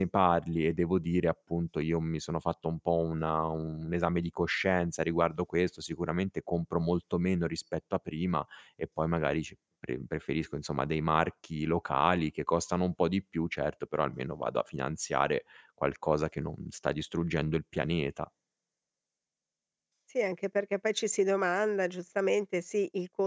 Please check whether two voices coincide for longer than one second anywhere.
No

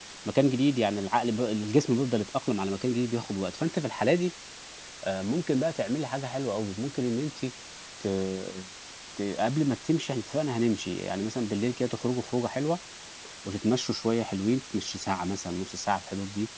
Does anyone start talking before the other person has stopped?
No

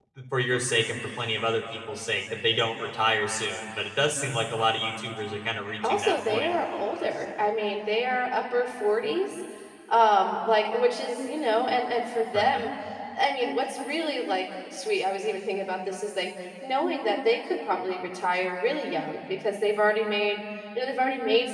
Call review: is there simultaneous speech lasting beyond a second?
Yes, from 5.8 s

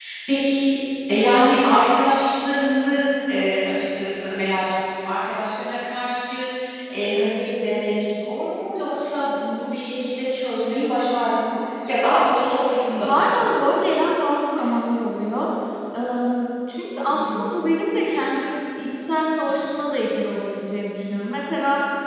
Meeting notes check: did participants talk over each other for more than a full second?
No

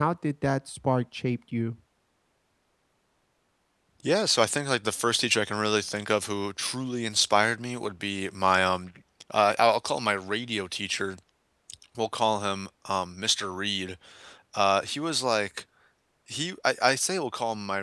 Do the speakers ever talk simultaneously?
No

